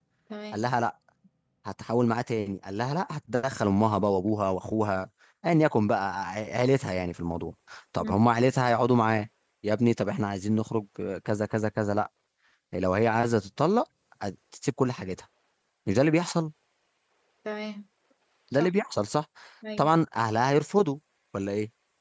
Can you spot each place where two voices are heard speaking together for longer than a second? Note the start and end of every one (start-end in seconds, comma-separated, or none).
none